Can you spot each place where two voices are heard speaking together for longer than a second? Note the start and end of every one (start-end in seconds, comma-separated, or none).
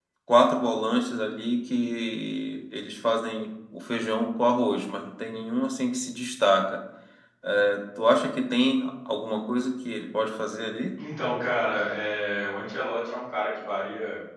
none